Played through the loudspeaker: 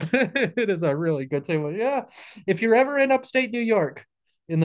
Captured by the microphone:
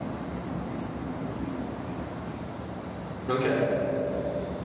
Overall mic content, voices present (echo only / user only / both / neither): user only